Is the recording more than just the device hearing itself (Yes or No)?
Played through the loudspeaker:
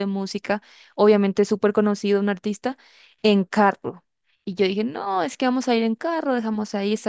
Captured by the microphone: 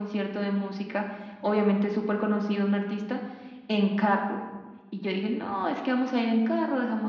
No